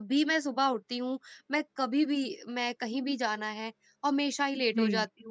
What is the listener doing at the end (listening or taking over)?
listening